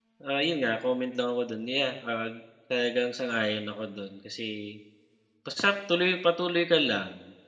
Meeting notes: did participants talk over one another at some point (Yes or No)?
No